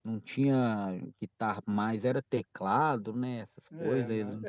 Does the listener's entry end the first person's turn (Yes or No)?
Yes